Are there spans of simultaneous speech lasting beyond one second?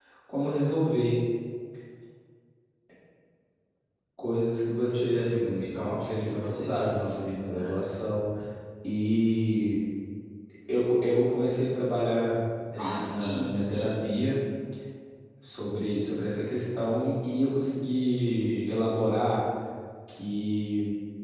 Yes, from 4.9 s

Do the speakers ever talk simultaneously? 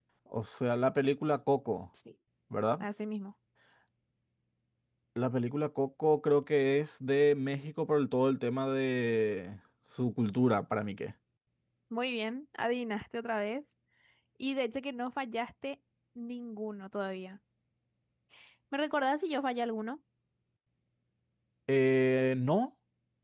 No

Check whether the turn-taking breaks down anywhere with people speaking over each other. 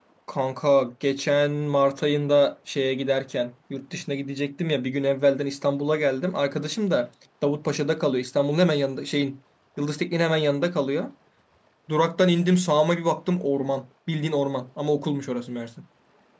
No

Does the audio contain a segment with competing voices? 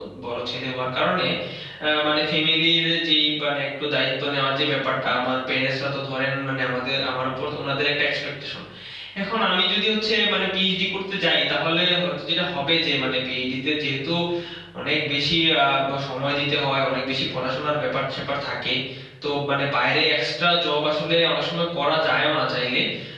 No

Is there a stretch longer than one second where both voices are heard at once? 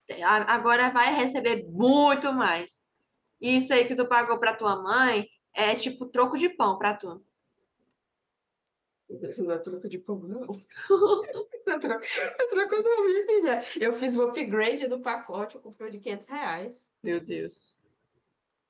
No

